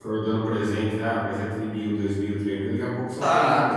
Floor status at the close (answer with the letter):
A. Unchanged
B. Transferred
B